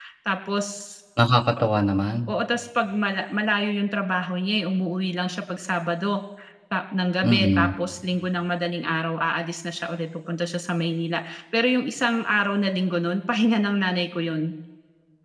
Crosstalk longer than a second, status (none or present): none